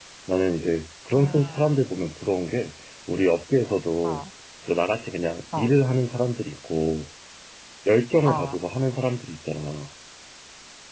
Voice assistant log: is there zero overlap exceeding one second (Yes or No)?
Yes